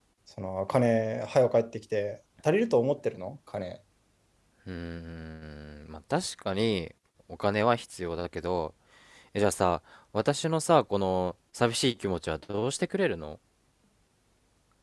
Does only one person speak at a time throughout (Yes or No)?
Yes